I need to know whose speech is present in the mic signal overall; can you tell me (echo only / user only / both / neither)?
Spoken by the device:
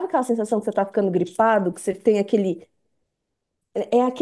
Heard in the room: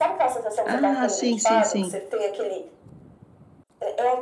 both